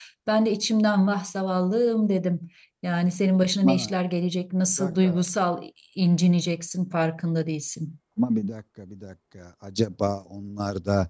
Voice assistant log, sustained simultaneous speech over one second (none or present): none